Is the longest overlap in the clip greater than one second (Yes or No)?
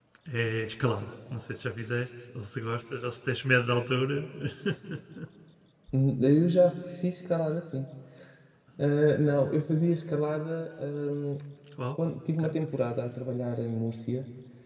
No